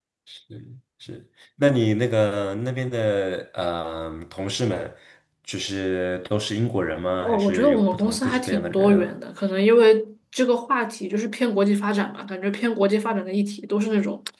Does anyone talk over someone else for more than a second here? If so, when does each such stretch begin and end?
7.2-9.1

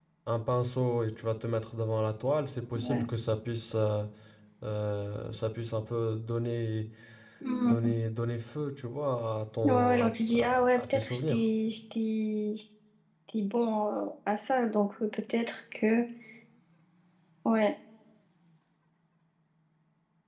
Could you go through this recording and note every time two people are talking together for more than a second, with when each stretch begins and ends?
9.6-11.4

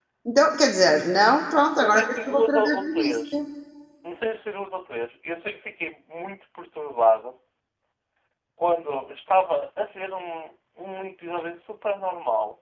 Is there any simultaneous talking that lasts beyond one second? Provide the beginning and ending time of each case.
1.8-3.4

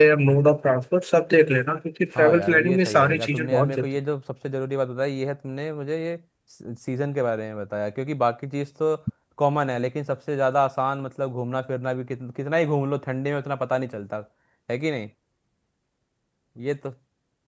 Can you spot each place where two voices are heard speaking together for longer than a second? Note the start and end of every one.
2.2-3.8

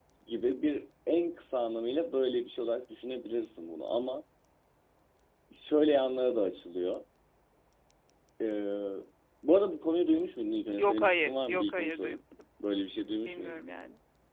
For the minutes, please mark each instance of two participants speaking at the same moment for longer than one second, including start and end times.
10.8-12.2

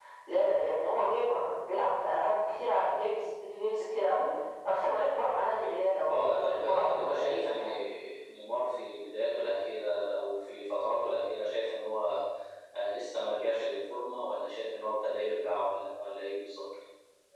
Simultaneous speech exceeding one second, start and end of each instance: 6.1-7.6

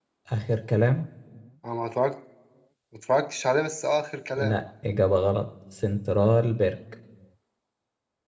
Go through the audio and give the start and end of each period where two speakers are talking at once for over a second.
none

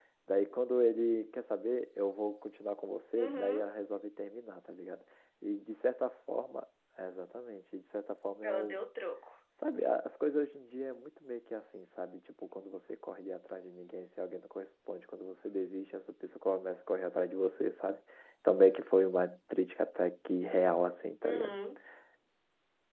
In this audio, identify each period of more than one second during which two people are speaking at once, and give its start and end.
none

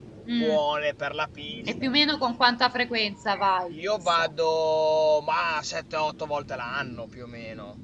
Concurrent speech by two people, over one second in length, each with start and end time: none

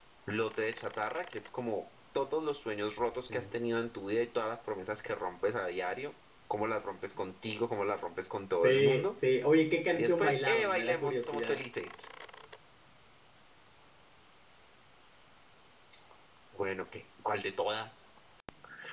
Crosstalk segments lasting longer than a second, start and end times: 9.9-11.6

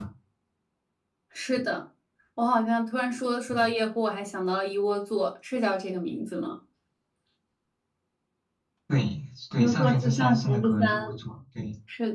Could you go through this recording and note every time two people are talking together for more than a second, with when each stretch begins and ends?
9.6-11.2

